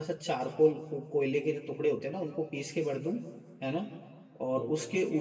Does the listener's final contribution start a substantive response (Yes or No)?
No